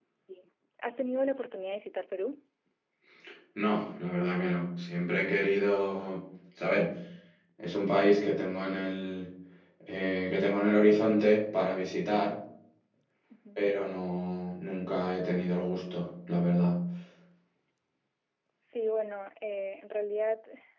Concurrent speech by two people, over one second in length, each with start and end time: none

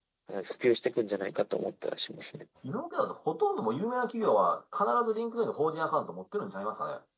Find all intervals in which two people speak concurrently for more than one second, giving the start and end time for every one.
none

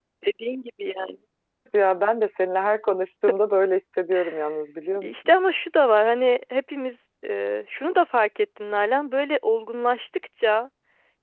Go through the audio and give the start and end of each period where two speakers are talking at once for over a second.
none

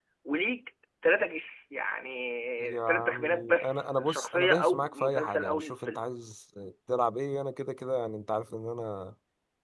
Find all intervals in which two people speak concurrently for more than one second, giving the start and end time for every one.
2.6-6.0

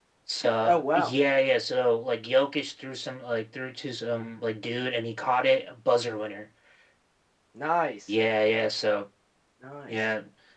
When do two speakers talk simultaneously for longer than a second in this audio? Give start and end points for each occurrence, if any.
none

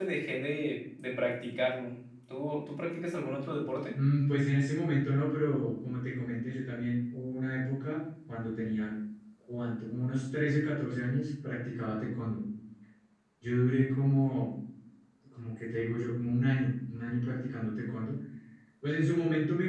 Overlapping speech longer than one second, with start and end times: none

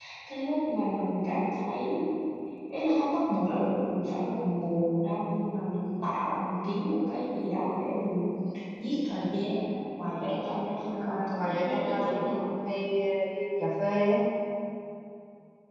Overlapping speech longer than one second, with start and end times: 10.9-12.6

